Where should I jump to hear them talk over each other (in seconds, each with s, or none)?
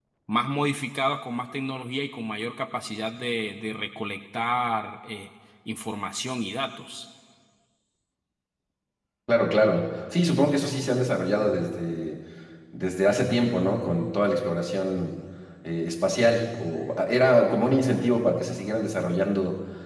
none